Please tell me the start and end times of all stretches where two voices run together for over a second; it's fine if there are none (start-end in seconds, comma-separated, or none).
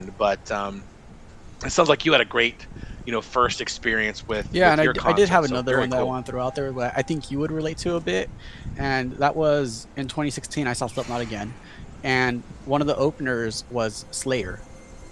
4.5-6.1